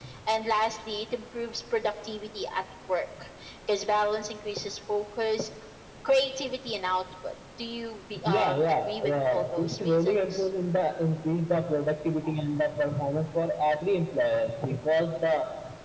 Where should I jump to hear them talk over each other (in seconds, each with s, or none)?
8.2 s